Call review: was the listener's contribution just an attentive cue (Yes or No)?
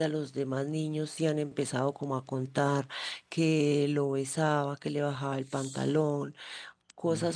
Yes